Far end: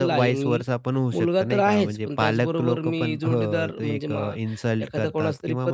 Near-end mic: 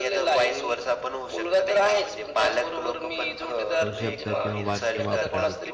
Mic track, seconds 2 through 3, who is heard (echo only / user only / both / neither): echo only